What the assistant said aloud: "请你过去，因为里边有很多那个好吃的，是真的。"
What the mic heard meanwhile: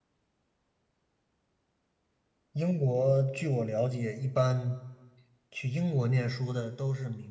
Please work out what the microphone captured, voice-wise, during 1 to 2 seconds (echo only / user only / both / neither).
neither